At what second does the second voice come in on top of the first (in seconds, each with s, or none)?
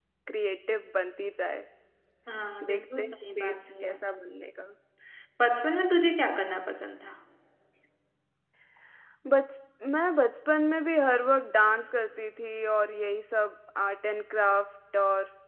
2.7 s